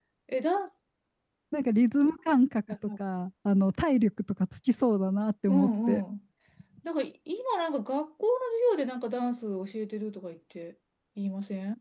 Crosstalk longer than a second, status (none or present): none